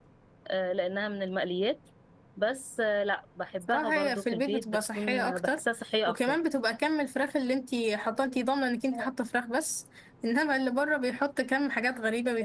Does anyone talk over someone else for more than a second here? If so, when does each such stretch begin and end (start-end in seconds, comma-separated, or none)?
3.6-5.6